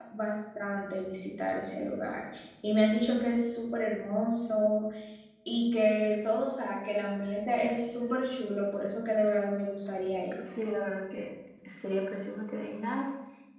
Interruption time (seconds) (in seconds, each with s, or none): none